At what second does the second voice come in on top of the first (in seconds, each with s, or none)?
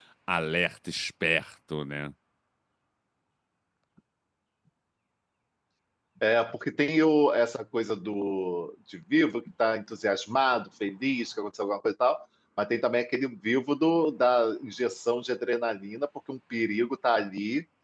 none